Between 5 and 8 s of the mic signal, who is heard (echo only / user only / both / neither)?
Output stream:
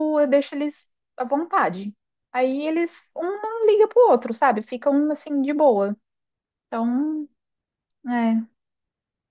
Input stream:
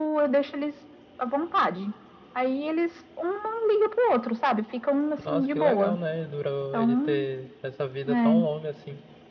both